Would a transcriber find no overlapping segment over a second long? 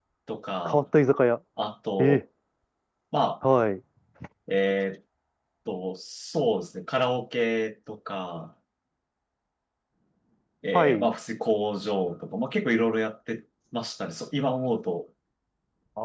Yes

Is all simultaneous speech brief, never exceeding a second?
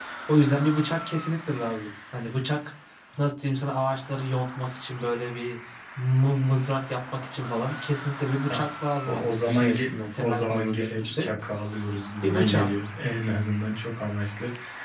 No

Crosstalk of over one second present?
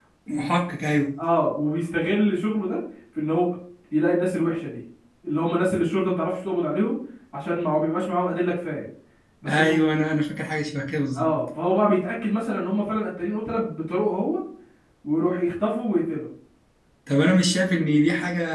No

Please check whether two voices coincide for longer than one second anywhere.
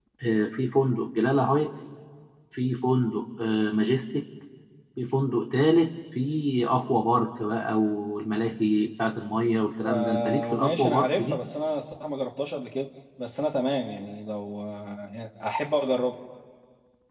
Yes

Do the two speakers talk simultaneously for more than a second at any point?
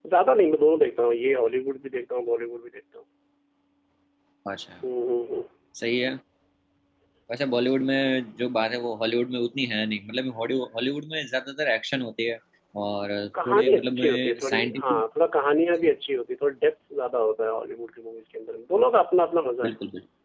Yes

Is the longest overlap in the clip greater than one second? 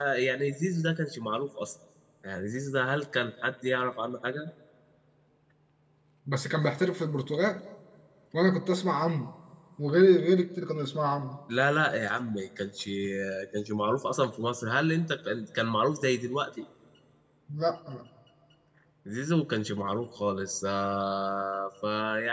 No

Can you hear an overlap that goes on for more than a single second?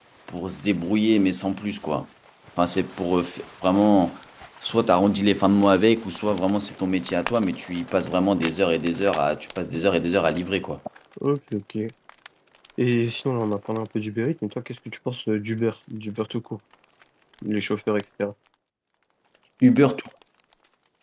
No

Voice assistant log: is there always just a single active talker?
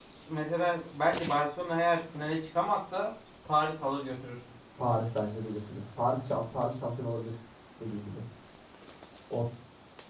Yes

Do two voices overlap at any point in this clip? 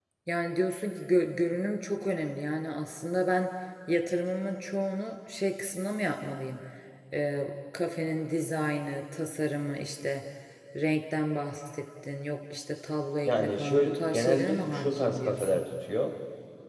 Yes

